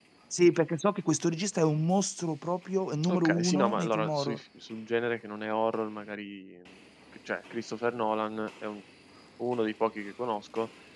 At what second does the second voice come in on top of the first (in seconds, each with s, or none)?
3.0 s